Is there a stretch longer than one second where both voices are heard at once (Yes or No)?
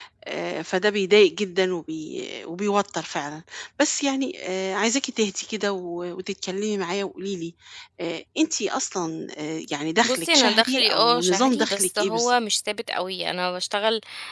Yes